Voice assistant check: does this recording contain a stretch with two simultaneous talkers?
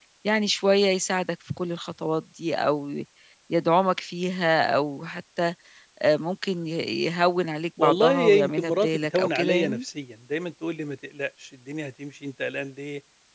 Yes, from 7.8 s

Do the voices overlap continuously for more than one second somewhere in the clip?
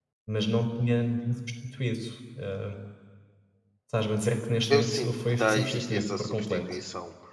Yes, from 4.7 s

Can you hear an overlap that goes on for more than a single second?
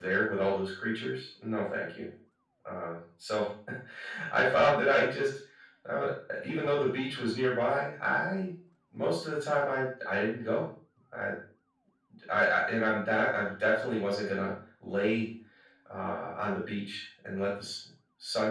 No

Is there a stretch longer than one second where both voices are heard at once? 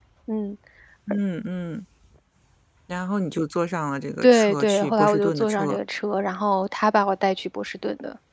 Yes, from 4.2 s

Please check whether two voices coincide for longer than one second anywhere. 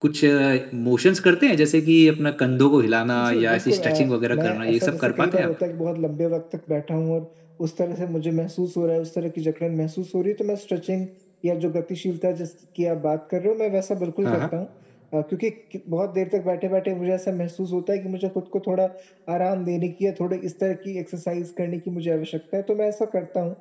Yes, from 3.2 s

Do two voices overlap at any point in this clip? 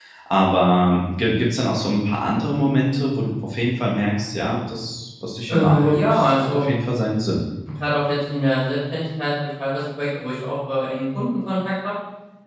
Yes, from 5.5 s

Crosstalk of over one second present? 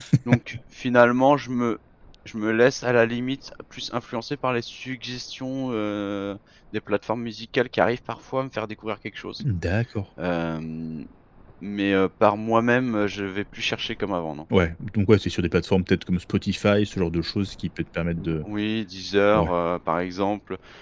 No

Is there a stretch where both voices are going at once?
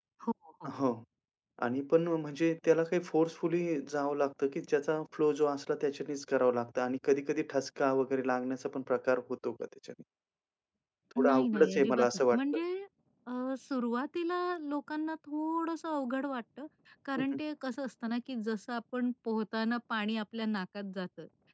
Yes, from 11.2 s

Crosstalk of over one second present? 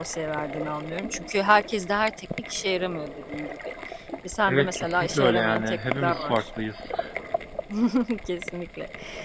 Yes, from 4.5 s

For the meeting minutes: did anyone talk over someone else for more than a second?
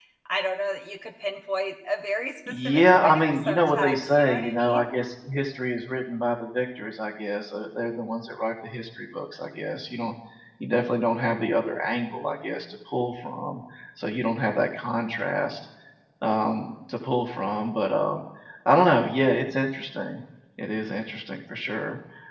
Yes, from 2.5 s

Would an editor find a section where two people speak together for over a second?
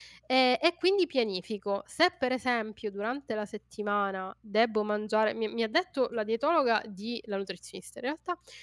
No

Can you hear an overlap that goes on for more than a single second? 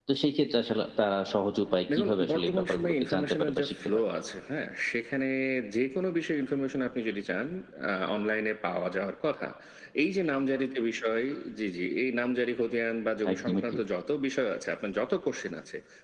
Yes, from 1.9 s

